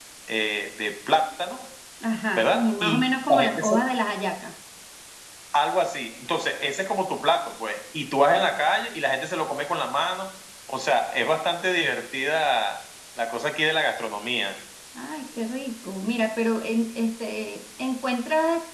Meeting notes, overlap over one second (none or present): present